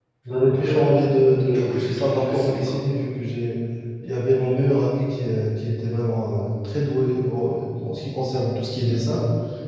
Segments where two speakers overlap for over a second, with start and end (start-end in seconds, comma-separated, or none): 0.6-2.7